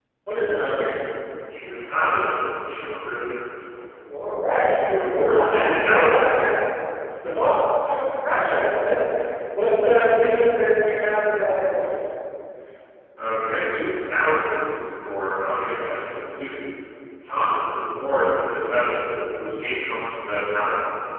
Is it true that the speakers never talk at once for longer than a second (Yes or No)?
No